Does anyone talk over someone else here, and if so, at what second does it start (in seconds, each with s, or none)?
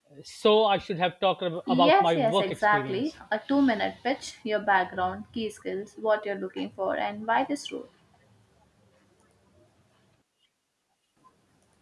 1.7 s